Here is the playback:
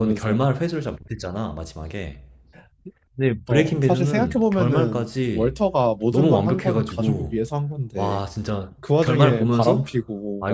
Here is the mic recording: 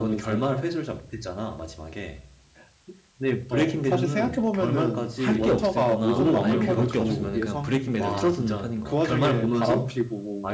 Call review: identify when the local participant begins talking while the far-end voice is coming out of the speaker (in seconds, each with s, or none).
5.2 s